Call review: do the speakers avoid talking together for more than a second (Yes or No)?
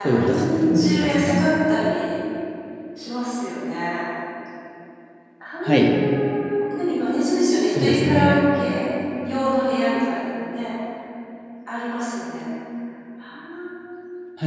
No